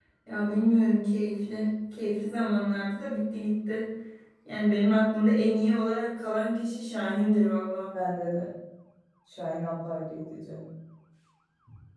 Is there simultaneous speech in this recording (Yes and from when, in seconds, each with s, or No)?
No